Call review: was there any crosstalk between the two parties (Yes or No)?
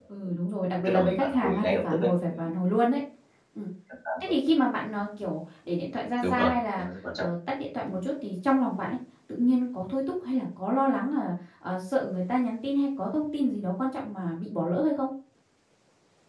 Yes